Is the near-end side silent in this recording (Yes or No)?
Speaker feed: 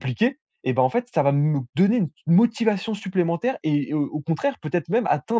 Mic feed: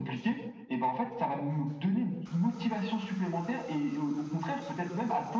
Yes